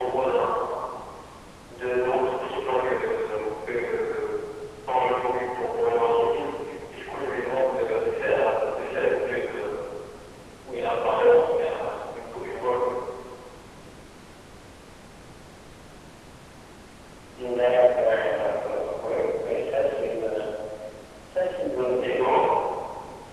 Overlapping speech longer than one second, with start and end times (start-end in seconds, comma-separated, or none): none